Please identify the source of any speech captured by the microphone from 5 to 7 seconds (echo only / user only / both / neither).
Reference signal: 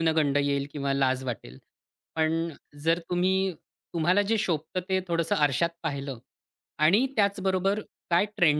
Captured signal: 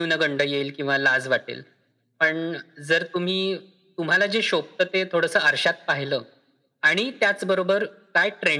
echo only